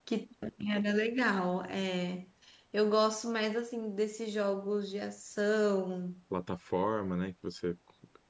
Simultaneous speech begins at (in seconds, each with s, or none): none